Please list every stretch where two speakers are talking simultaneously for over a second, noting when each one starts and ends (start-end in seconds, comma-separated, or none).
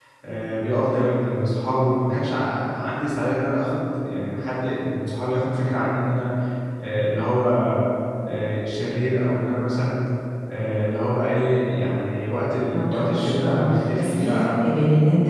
12.7-14.7